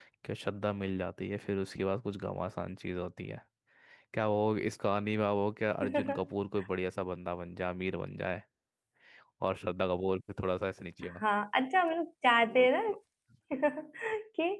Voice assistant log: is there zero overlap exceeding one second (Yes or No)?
Yes